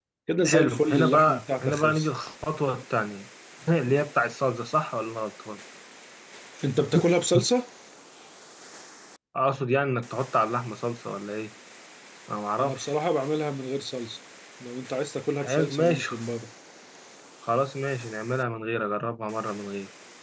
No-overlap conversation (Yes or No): No